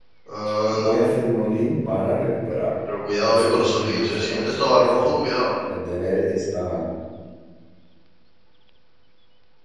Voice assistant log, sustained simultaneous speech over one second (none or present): present